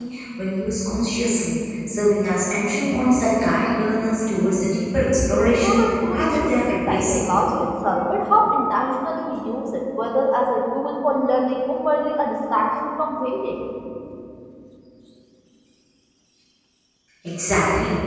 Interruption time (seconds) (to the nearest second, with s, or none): 6 s